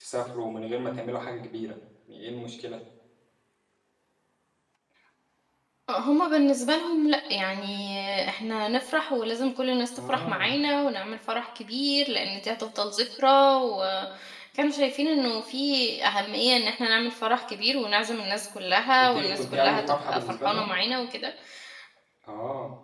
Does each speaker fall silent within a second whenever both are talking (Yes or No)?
No